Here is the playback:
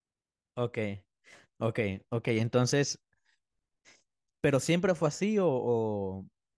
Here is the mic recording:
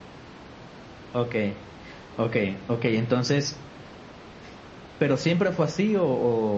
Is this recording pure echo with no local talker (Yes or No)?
Yes